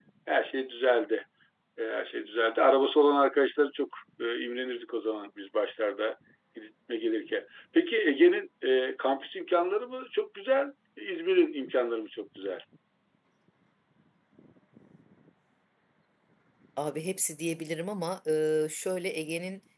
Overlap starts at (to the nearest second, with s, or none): none